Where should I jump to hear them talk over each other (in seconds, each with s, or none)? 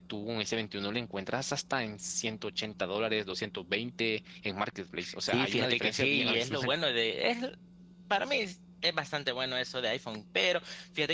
5.3 s